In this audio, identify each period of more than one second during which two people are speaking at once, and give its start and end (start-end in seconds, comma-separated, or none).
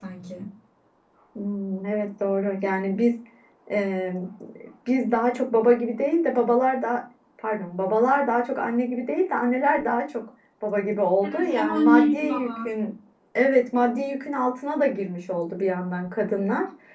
11.2-12.7